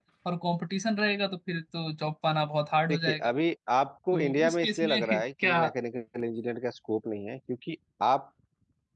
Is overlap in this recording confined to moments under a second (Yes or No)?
No